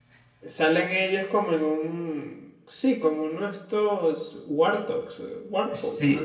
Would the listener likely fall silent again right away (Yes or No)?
No